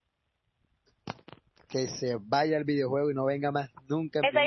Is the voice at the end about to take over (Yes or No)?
Yes